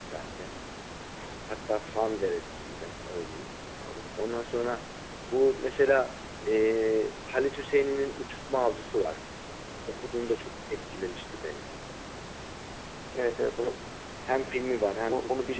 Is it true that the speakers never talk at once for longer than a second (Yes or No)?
Yes